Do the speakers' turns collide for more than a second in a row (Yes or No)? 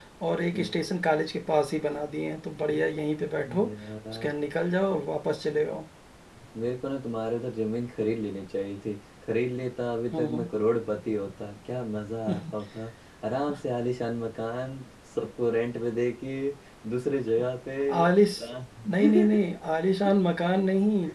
No